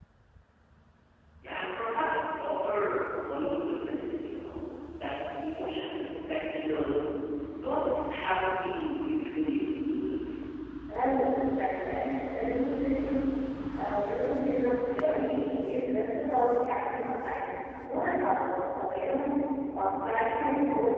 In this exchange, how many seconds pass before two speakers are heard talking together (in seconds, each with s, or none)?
none